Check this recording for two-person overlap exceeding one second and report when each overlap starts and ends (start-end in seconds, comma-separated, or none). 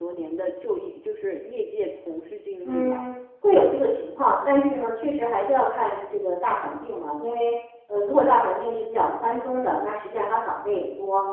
none